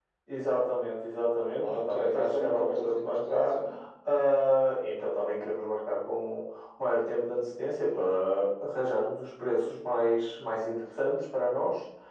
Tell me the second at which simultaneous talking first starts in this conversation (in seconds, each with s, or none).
1.6 s